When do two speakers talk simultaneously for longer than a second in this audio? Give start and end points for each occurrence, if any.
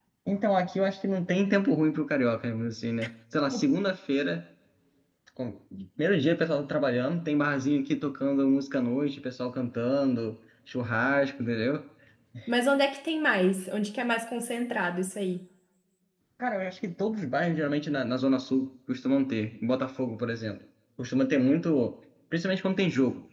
none

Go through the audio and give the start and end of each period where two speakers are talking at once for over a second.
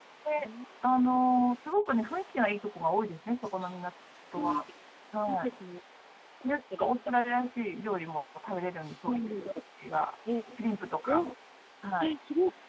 none

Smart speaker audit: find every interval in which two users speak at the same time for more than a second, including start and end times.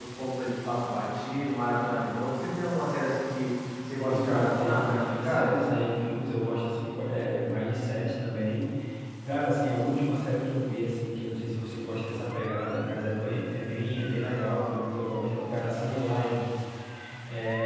4.0-5.5

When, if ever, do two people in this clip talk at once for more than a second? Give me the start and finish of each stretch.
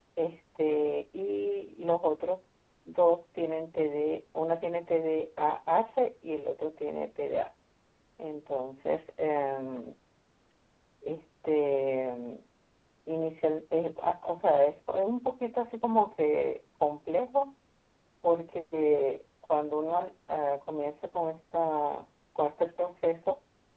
none

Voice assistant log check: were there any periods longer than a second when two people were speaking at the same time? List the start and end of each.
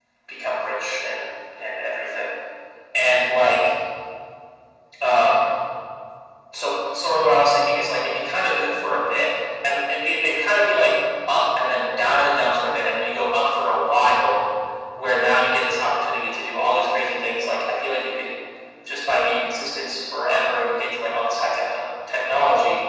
none

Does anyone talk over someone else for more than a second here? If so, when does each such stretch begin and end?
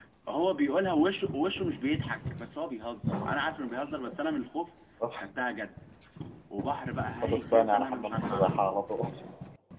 7.2-8.6

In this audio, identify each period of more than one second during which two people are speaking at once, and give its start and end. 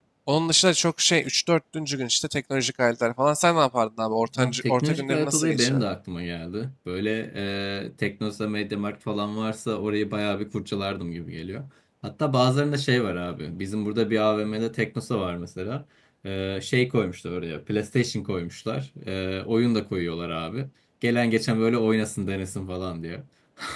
4.4-5.8

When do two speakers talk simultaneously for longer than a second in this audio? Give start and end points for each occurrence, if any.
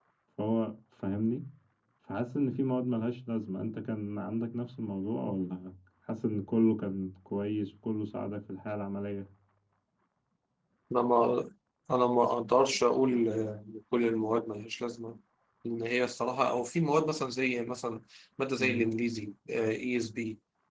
none

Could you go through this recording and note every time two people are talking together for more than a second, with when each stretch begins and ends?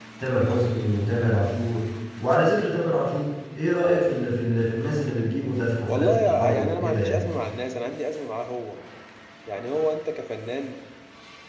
5.9-7.2

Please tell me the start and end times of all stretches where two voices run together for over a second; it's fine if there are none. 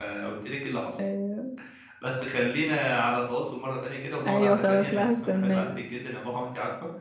4.2-5.7

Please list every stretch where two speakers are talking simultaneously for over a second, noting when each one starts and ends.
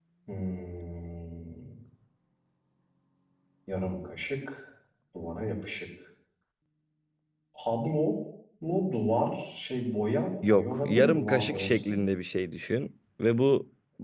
10.5-12.0

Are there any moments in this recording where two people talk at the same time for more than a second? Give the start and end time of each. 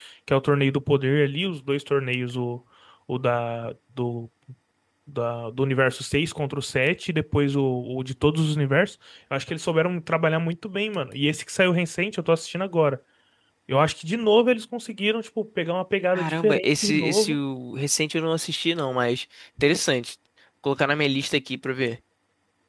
16.2-17.4

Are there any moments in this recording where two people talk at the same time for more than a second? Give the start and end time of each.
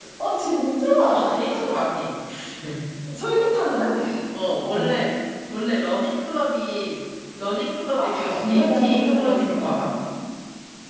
8.0-9.8

